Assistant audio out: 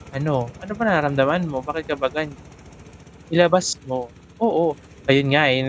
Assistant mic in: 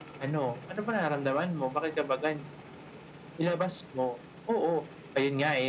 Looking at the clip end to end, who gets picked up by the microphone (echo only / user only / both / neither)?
echo only